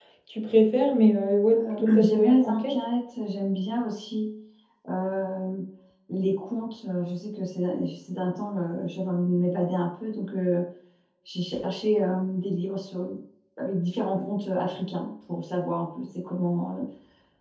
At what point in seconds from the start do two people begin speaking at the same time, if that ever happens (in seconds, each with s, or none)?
1.5 s